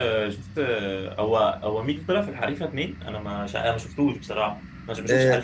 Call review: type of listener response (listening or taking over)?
taking over